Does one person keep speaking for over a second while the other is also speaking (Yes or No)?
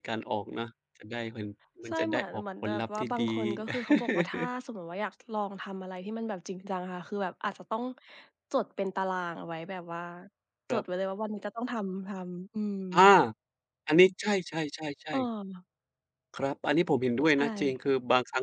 Yes